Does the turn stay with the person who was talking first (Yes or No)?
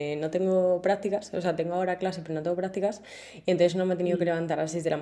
Yes